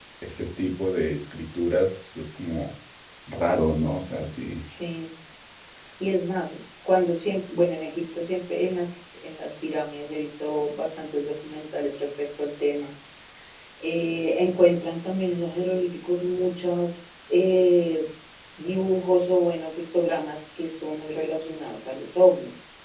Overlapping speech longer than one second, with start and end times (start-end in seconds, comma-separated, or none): none